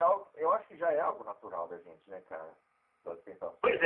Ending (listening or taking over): taking over